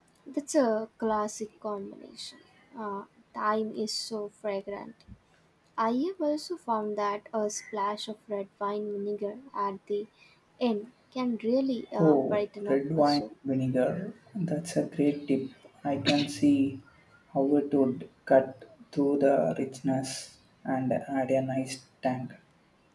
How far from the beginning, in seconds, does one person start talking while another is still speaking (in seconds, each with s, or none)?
12.0 s